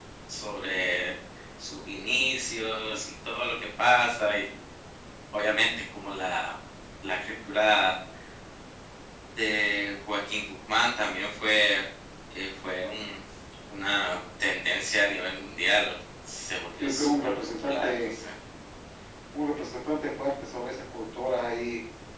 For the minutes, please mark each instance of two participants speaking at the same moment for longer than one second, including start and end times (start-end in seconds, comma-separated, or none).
16.8-18.1